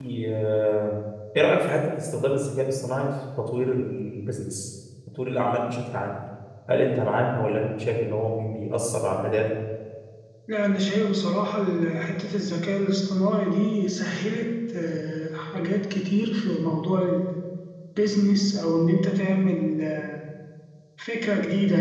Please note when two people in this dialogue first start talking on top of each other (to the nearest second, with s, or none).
none